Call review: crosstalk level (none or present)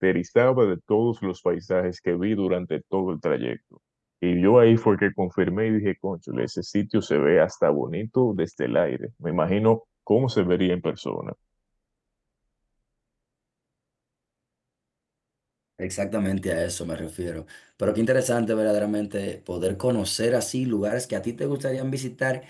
none